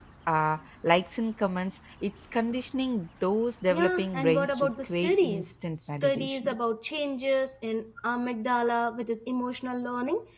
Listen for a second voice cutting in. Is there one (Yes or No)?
Yes